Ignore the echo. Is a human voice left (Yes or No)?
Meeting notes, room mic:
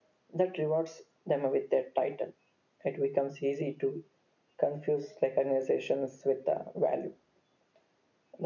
No